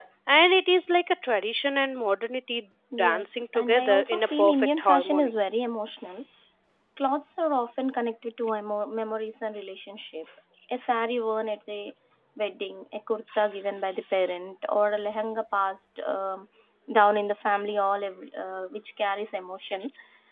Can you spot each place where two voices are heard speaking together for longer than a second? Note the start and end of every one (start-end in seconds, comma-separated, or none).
3.0-5.3